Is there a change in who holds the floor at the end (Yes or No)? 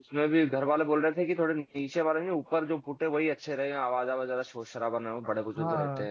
Yes